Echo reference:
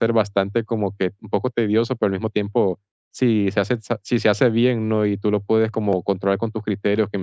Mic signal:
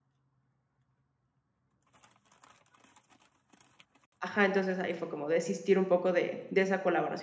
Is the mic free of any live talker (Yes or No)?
No